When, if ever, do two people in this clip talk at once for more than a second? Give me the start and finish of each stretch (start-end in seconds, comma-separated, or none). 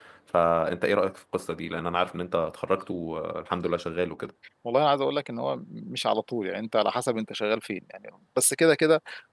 none